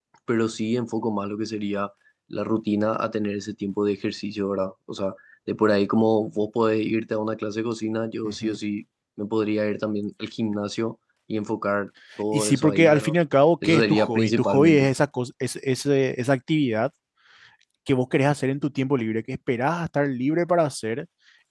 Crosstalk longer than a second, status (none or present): present